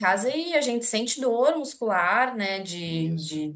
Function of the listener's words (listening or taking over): listening